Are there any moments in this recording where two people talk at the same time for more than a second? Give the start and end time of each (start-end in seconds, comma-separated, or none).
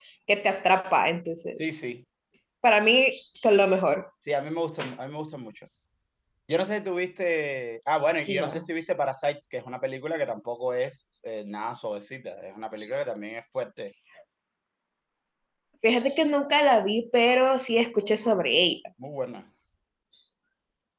none